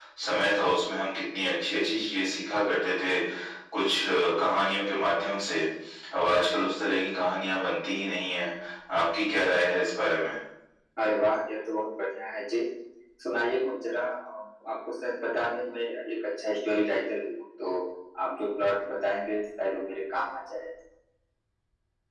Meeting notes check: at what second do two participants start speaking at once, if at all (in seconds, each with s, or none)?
none